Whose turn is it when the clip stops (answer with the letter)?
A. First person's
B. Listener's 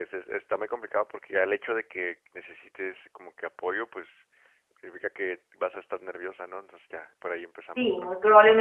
B